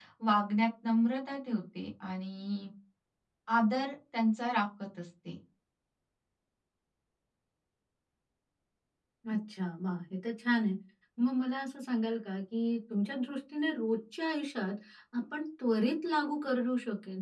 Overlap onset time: none

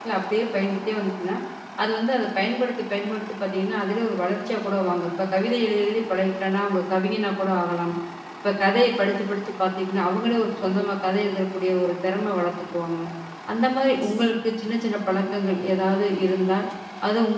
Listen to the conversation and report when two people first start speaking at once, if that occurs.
none

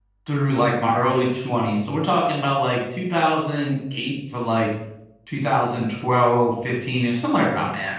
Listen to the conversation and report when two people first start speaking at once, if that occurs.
none

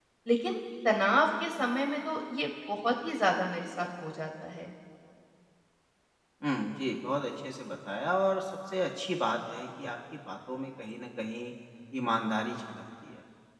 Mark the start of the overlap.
none

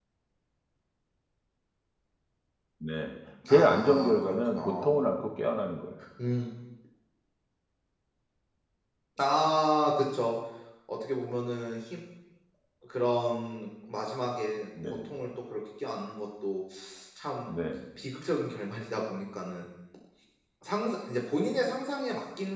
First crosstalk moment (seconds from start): 3 s

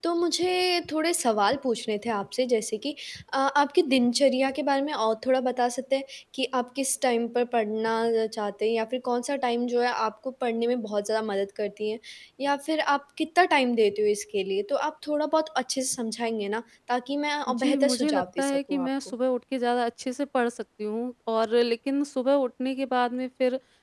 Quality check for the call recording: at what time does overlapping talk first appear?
17 s

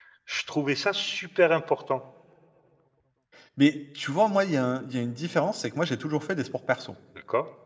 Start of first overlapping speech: none

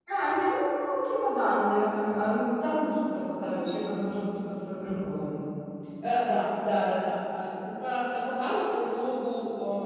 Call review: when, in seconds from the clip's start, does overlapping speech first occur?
none

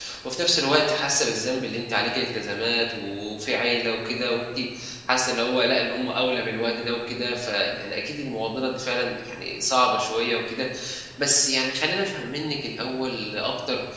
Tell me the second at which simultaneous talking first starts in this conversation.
none

